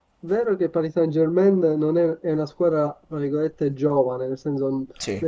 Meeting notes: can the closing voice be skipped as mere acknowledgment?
Yes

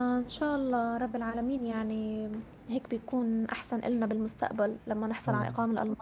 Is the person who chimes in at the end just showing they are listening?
Yes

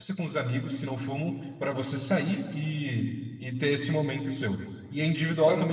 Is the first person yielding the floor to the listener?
No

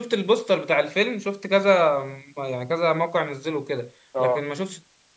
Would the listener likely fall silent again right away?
Yes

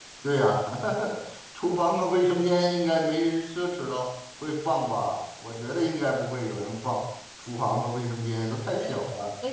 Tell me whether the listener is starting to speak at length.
Yes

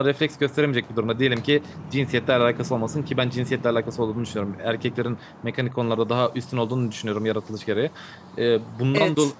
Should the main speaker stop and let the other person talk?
No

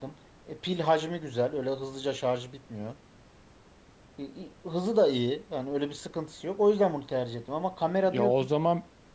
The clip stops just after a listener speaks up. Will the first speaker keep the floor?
No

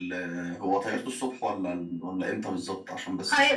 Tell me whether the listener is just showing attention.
No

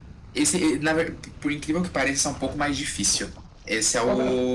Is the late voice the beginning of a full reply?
No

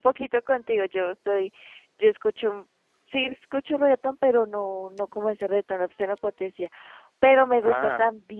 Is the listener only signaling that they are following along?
Yes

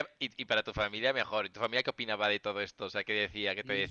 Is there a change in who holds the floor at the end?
Yes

